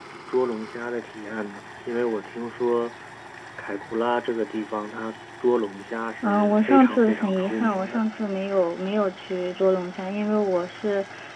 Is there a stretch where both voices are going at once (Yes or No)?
Yes